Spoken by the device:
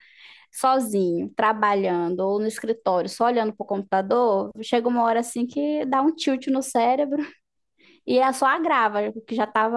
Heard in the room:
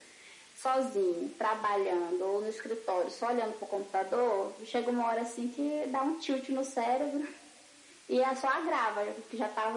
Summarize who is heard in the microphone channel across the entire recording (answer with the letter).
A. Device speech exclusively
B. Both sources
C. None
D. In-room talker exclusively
A